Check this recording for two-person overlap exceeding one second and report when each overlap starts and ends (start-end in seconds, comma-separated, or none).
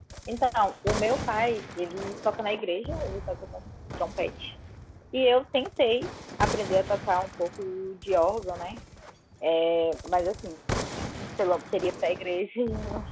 none